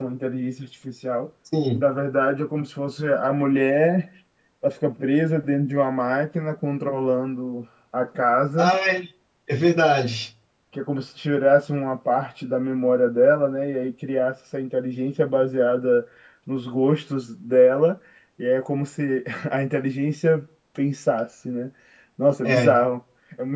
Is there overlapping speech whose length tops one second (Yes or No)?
No